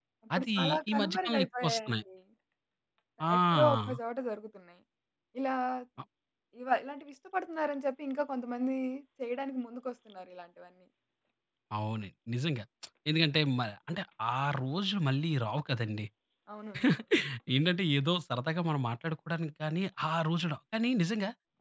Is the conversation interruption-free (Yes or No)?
No